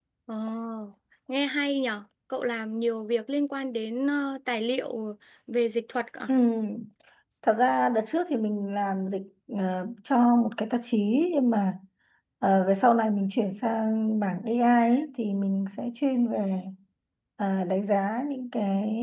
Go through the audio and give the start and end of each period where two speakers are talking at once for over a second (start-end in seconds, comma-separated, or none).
none